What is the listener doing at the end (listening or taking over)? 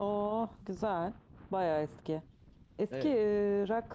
listening